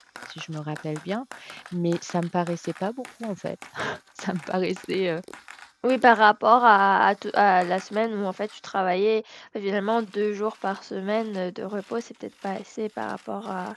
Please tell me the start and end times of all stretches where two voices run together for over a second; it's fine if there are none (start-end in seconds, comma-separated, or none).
none